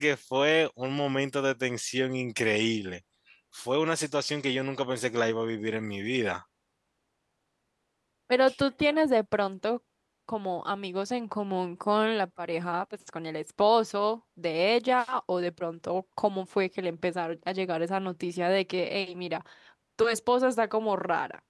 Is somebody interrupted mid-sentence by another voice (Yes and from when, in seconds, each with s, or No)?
No